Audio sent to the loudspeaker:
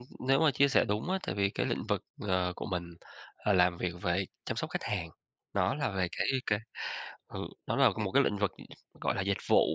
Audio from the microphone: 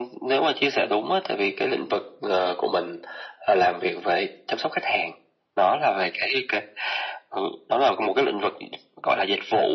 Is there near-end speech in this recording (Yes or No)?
No